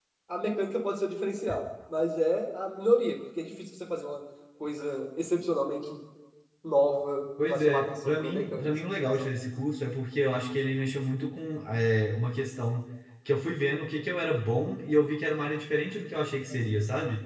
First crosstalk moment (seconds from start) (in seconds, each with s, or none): 7.4 s